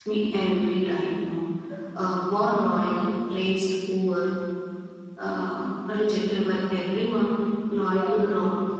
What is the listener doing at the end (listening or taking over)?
listening